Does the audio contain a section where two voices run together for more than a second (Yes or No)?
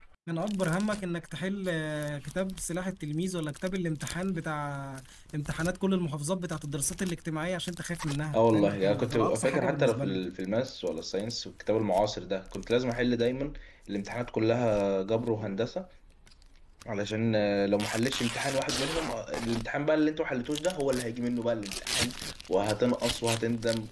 Yes